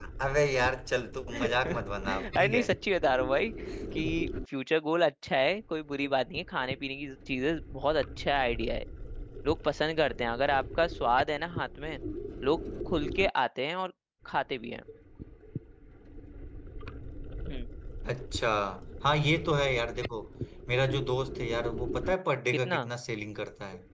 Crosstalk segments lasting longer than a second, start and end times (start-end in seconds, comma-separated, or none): 1.3-2.6